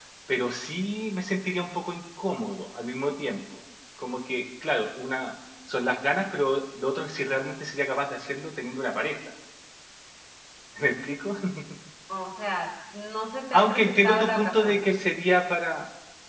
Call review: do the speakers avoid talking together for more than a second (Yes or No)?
No